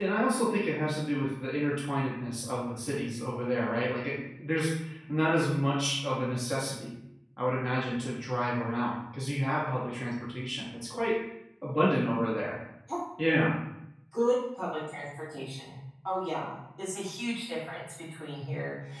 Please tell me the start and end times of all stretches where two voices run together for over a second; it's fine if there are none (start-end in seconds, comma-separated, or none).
none